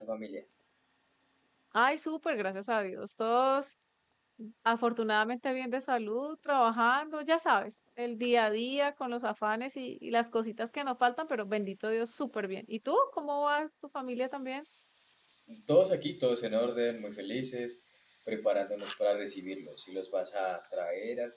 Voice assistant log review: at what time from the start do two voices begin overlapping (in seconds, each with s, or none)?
none